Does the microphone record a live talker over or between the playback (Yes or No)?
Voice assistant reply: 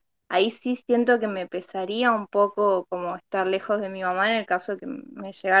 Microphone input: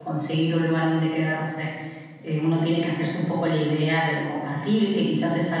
Yes